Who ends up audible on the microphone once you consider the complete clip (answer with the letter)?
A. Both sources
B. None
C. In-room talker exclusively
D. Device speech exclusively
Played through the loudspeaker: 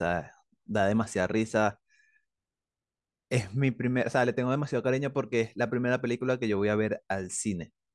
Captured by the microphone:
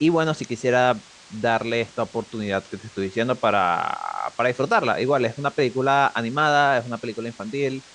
C